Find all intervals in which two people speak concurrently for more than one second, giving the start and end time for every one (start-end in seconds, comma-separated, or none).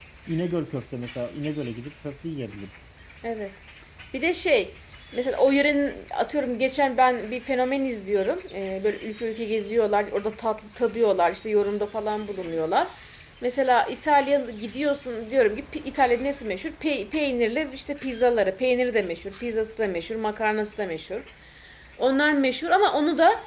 none